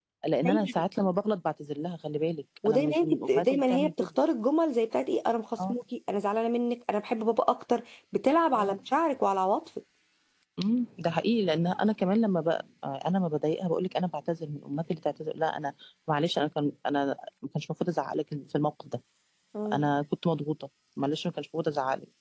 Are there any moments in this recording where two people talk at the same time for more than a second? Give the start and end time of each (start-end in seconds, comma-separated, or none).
2.7-3.9